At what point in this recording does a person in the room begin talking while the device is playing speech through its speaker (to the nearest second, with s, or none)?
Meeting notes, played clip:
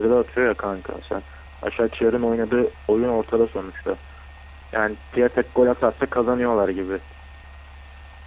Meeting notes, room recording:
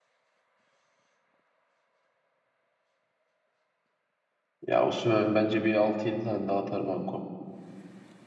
5 s